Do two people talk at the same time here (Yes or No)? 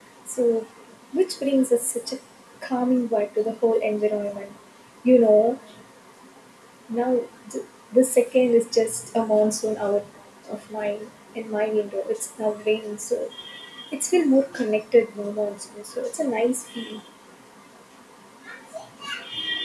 No